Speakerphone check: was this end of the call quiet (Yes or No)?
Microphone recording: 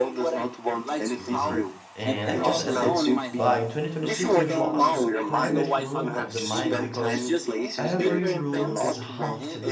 No